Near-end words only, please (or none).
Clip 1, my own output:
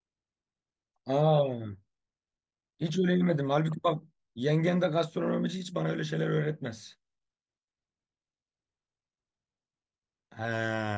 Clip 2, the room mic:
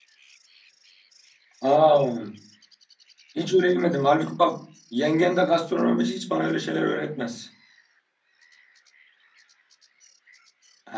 none